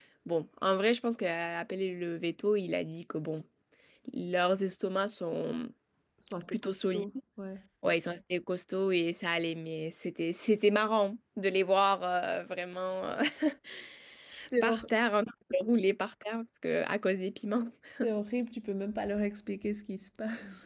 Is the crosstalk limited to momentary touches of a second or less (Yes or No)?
Yes